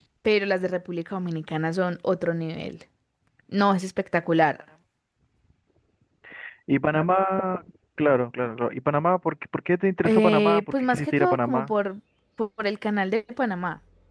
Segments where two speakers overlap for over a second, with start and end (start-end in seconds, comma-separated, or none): 10.1-11.7